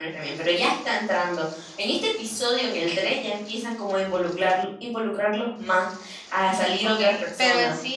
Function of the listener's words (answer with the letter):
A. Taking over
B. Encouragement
A